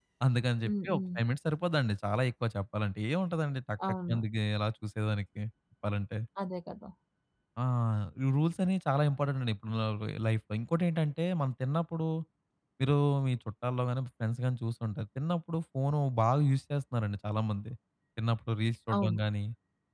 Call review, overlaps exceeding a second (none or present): none